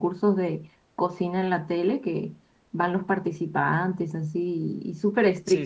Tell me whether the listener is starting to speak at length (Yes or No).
Yes